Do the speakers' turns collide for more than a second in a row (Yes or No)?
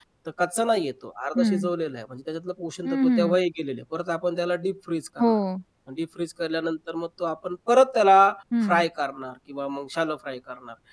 No